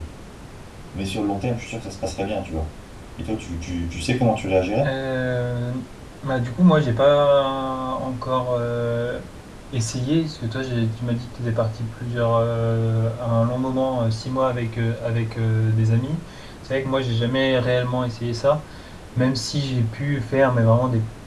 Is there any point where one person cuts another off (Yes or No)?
No